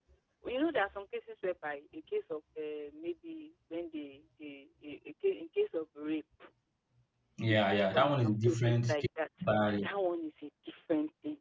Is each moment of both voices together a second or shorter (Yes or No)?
No